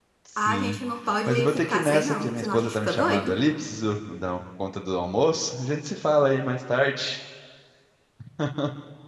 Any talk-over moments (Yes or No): Yes